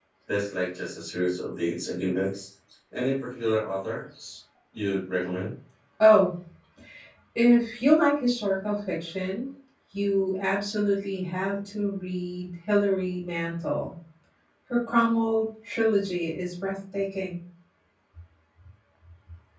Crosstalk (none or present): none